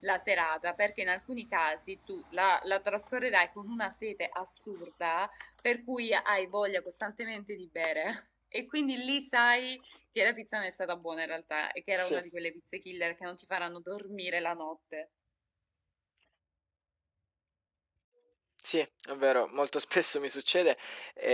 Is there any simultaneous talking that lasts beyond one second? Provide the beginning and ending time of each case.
none

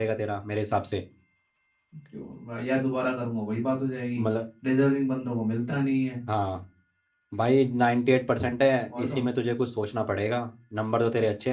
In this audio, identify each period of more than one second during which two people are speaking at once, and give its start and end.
none

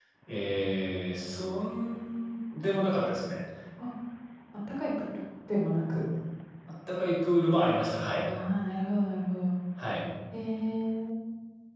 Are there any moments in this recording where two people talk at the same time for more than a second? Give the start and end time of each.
none

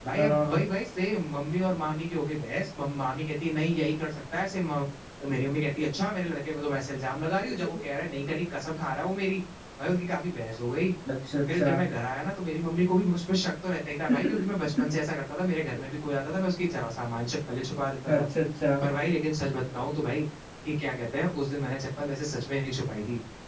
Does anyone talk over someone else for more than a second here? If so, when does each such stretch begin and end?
none

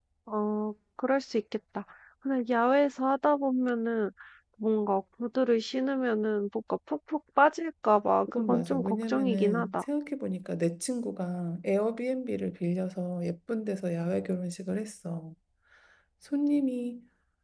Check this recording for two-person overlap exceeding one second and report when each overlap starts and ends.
8.3-9.8

